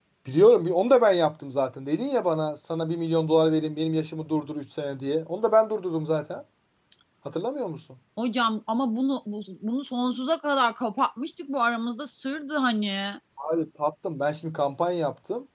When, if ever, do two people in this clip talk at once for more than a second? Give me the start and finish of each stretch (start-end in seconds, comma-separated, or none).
none